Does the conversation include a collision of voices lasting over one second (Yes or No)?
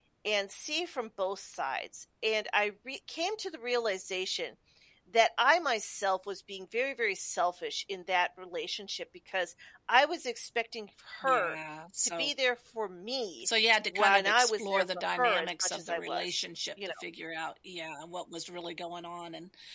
Yes